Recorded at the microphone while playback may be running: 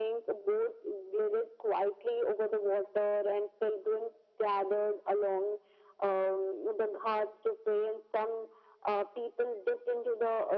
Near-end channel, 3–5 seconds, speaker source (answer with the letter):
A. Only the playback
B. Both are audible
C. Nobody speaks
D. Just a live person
A